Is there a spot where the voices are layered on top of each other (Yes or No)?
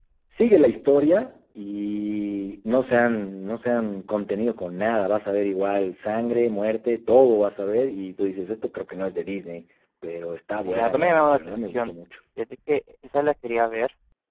Yes